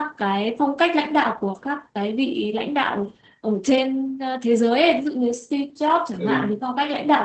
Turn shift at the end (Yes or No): No